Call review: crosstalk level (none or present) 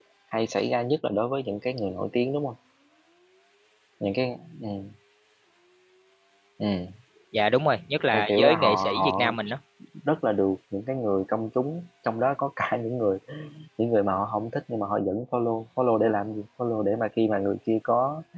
present